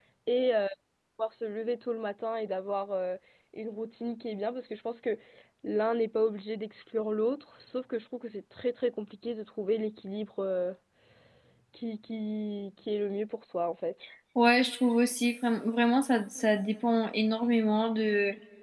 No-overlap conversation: Yes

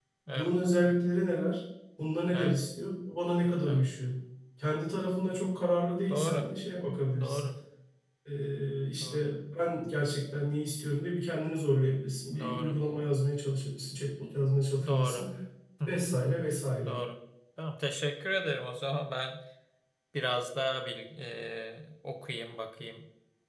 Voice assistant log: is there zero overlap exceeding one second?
Yes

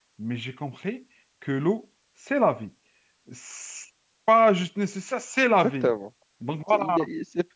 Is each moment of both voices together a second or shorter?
Yes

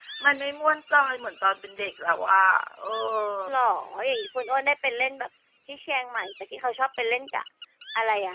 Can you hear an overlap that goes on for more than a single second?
No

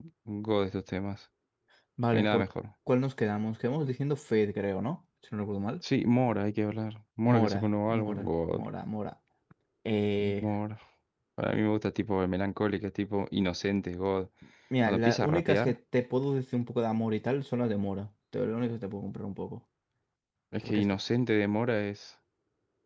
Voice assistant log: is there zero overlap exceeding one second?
No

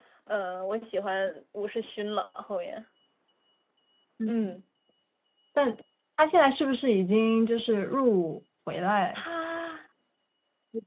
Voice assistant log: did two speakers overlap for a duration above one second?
No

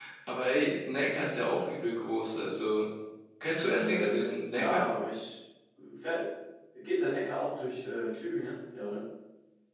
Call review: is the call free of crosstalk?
No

